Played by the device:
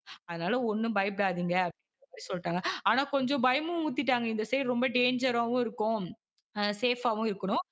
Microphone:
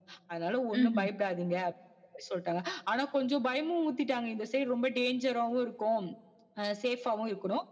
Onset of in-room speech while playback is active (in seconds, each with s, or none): 0.8 s